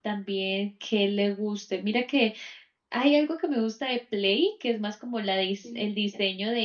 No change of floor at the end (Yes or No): Yes